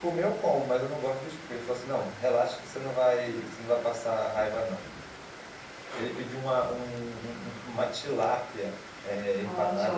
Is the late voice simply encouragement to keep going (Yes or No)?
Yes